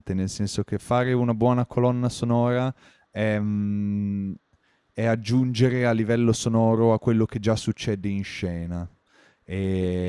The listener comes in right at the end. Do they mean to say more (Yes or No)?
Yes